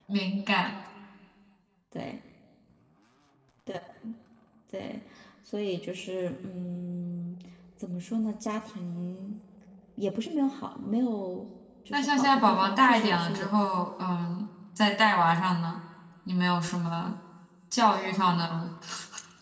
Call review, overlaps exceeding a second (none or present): present